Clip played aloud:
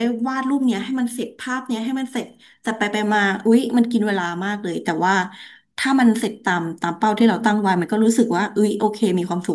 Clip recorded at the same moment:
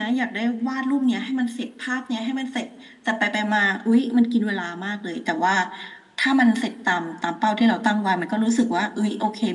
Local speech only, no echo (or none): none